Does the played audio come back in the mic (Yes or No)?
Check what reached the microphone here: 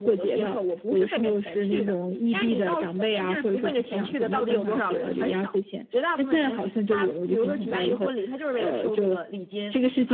Yes